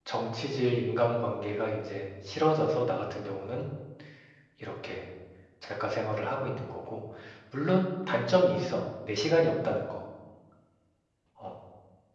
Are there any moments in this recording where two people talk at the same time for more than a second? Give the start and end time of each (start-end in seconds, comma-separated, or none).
none